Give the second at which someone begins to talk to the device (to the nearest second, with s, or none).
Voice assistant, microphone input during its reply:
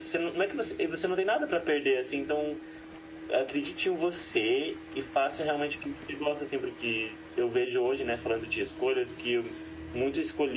none